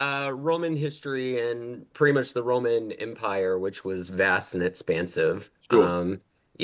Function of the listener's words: listening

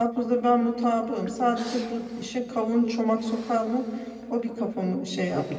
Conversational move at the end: taking over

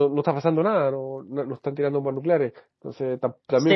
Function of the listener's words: taking over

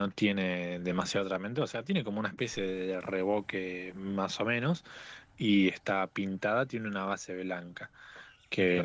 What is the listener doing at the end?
listening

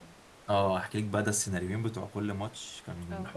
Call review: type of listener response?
listening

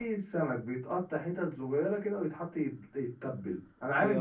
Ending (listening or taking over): listening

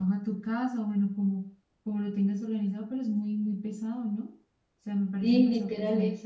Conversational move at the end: taking over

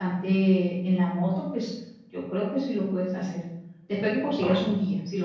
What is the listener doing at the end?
listening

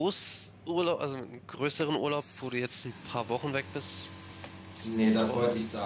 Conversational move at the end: taking over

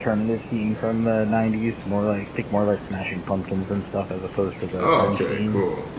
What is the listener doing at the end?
taking over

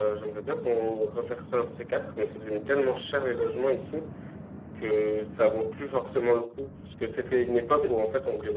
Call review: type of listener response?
listening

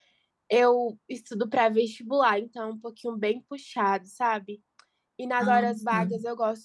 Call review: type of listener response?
listening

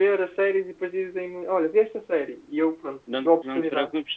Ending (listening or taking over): taking over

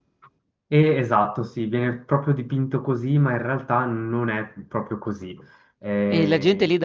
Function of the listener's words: taking over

